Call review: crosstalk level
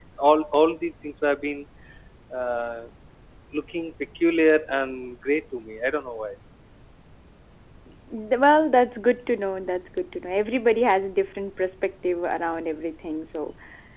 none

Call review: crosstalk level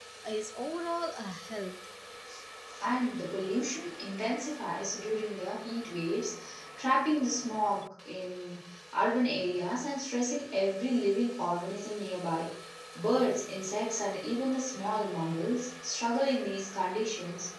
none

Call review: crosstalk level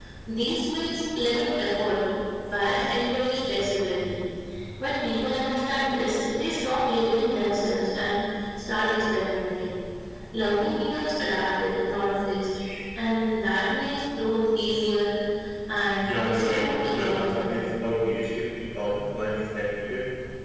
present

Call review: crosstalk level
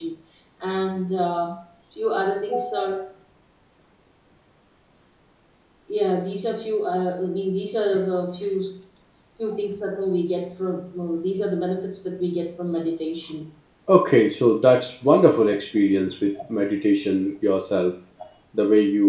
none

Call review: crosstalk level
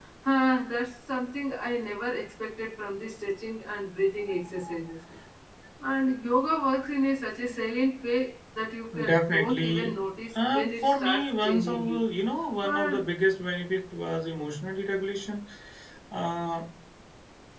present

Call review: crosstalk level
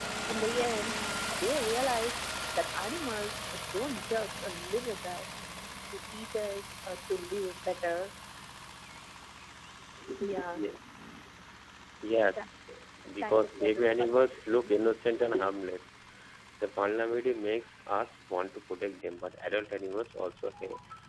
present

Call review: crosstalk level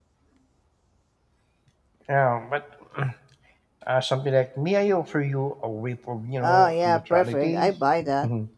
present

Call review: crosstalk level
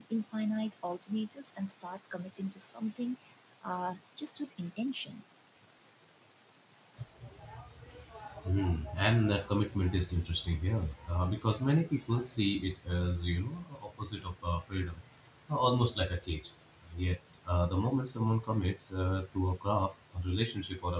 none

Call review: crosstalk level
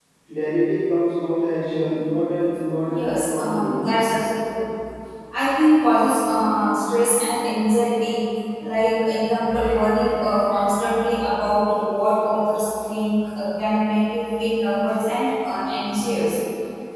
present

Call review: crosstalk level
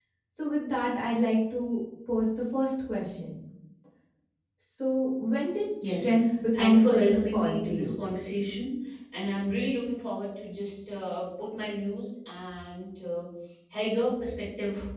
present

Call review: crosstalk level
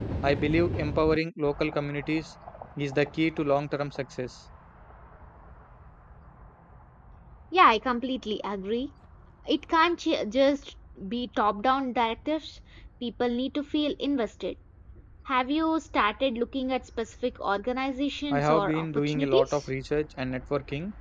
present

